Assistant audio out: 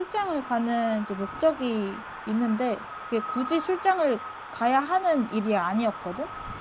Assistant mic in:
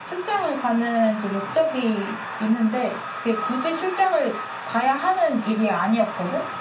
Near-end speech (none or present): none